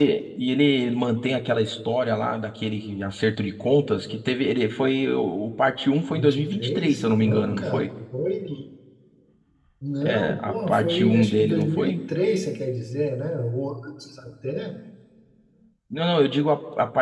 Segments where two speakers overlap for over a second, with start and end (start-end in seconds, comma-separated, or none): 6.1-7.8, 10.0-12.0